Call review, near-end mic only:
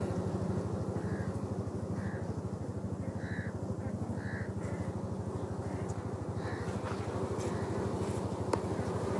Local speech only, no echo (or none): none